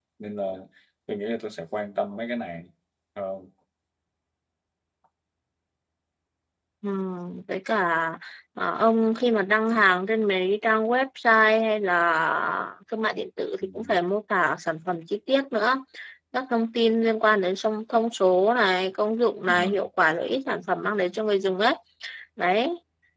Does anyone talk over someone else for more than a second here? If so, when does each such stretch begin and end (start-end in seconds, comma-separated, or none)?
none